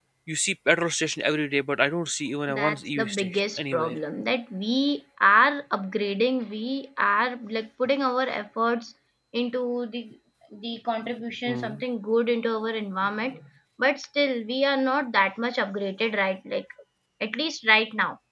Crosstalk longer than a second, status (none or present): present